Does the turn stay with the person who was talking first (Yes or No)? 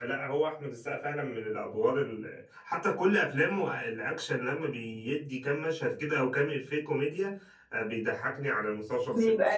Yes